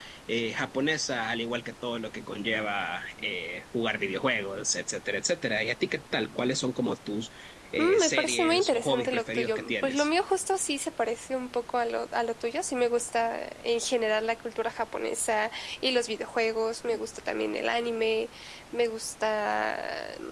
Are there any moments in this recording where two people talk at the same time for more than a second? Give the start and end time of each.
7.8-10.1

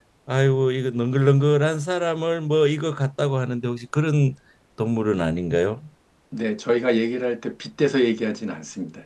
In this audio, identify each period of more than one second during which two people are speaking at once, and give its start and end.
none

